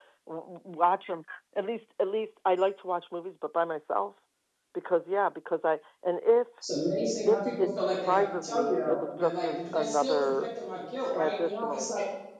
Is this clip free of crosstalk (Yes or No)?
No